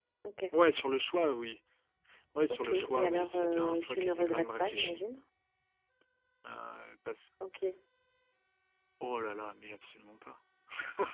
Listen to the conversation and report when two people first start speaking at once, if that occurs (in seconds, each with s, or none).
2.5 s